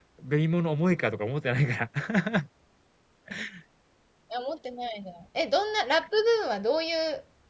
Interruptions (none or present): none